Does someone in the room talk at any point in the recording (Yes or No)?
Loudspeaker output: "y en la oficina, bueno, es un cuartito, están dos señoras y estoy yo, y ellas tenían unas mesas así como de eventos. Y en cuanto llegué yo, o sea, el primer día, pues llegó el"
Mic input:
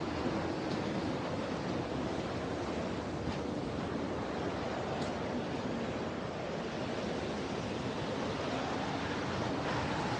No